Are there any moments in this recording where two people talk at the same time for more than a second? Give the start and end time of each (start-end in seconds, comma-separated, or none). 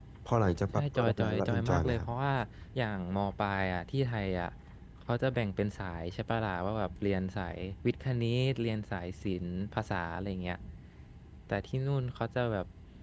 0.8-2.1